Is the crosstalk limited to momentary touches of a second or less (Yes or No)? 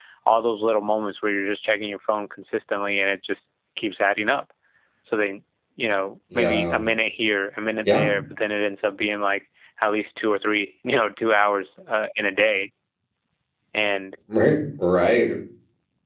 Yes